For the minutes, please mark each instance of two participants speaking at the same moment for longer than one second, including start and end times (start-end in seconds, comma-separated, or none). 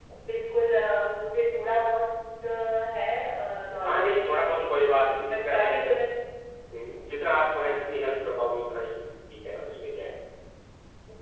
3.9-5.8